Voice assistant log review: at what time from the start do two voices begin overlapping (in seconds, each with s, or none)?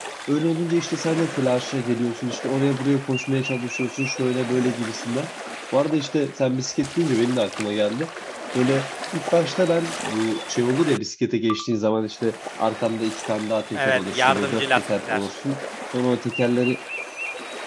13.8 s